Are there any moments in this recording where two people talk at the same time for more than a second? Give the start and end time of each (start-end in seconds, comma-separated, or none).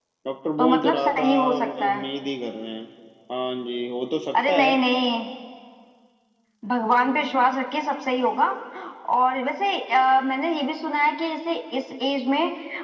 0.6-2.0